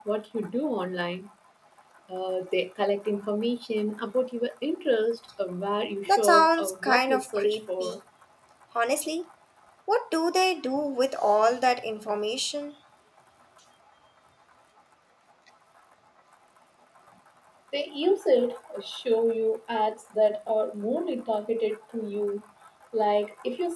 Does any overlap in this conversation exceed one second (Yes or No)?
Yes